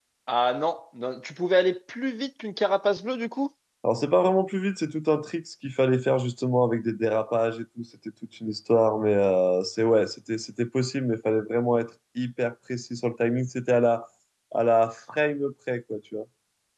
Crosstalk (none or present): none